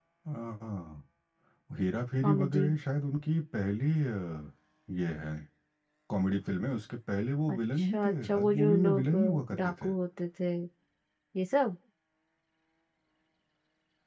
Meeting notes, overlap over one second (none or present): present